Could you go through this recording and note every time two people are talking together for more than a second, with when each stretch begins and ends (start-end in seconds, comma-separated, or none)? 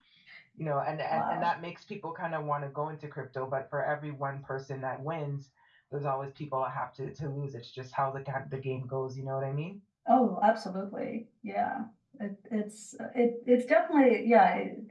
none